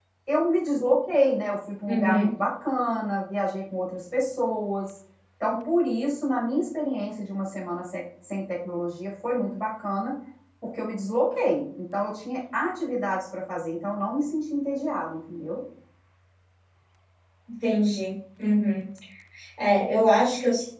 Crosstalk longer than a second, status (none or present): none